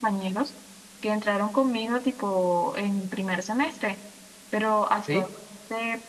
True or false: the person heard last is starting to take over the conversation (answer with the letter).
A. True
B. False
B